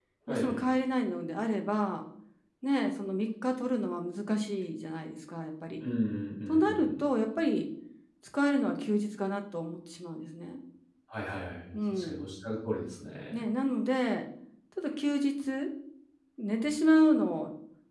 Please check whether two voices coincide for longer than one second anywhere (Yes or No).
No